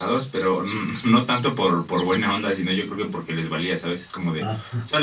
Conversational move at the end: listening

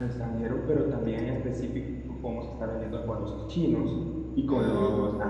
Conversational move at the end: listening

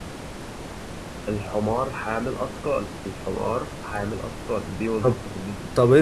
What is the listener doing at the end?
taking over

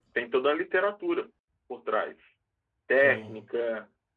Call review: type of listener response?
listening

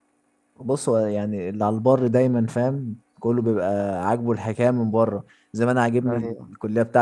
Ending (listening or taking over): listening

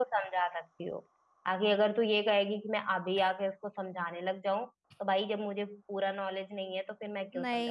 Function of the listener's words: taking over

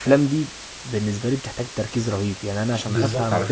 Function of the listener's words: taking over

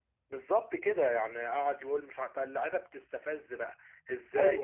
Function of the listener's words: listening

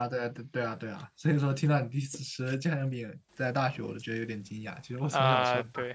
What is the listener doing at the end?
taking over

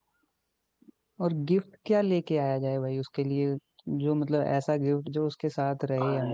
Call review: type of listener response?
taking over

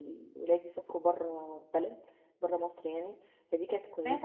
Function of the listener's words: listening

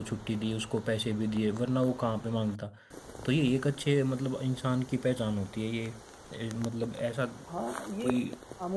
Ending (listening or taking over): taking over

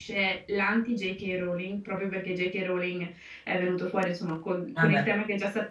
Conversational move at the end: listening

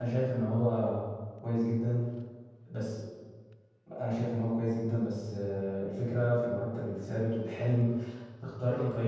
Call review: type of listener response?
listening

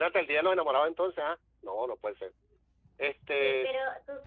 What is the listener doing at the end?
taking over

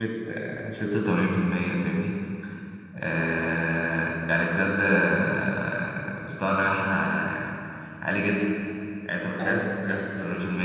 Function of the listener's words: listening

